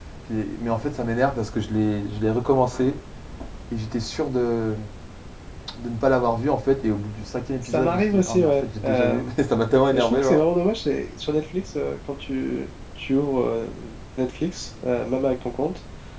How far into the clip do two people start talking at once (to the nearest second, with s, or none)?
8 s